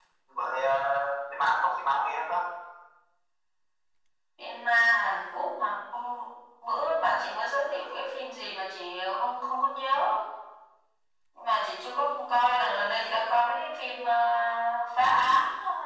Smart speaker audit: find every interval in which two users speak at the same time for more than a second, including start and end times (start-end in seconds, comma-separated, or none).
none